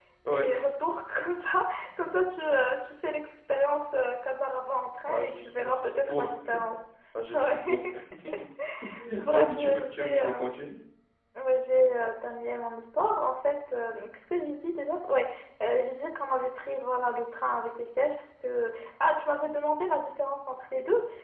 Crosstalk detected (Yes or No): Yes